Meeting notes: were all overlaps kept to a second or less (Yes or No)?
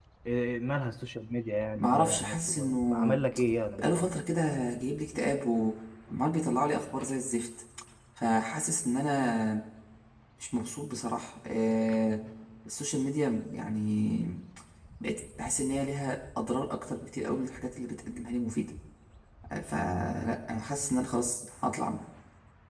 No